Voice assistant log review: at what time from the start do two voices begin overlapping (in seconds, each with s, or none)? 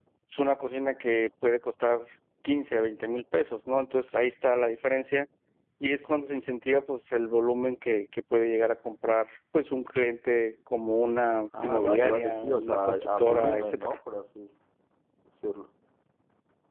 11.5 s